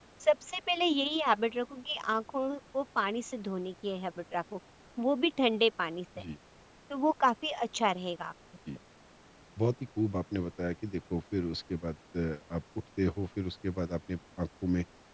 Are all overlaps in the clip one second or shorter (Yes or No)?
Yes